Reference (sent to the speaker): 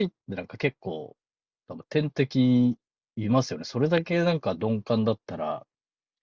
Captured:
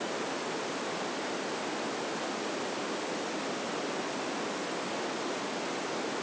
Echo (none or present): none